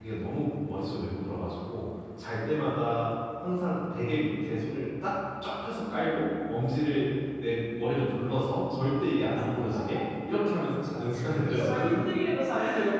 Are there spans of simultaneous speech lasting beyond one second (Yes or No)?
No